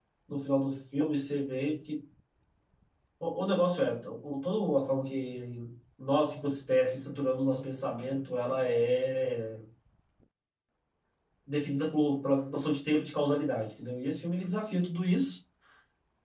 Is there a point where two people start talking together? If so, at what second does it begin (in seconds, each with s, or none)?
none